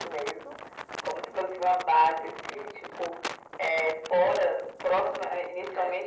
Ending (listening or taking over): listening